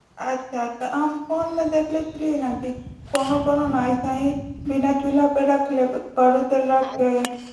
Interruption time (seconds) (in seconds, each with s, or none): none